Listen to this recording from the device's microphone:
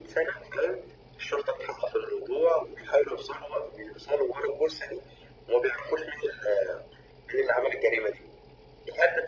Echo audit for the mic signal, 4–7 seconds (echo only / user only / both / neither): echo only